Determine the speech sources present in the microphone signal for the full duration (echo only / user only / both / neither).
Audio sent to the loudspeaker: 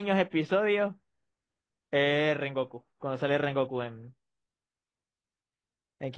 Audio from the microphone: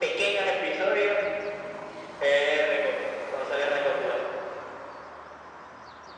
echo only